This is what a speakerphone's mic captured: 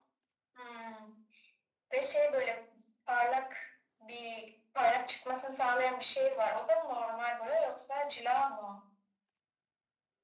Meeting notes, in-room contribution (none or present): none